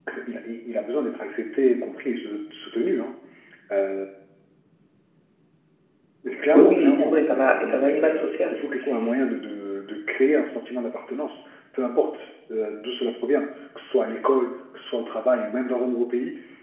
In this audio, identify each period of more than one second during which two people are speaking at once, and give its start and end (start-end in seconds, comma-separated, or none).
6.5-8.6